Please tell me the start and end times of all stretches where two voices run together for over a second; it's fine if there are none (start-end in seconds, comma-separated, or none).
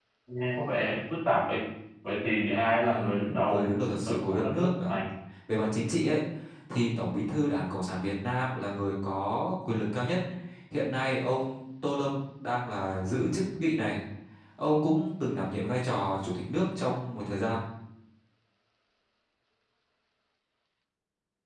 2.8-5.0